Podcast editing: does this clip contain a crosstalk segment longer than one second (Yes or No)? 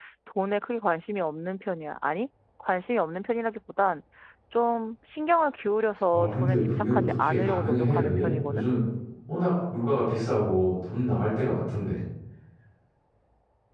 Yes